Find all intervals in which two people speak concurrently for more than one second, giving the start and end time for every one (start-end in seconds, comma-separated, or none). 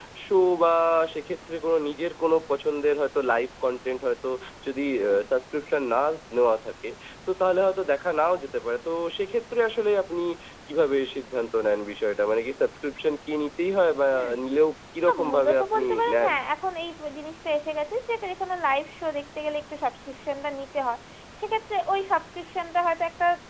15.1-16.3